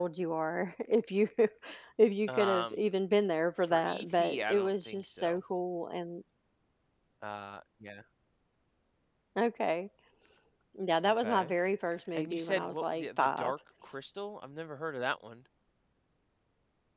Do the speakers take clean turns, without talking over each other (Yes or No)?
No